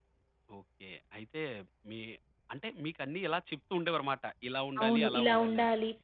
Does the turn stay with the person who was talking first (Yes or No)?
No